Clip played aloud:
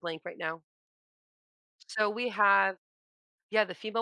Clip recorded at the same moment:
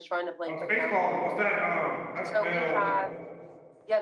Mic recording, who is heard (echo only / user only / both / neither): both